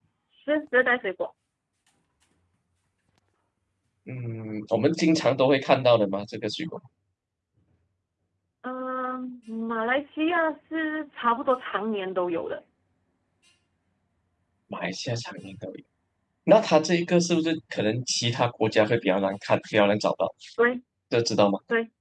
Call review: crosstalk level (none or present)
none